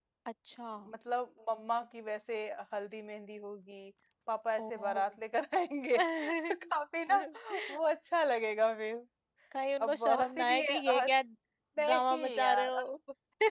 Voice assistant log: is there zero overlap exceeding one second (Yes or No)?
No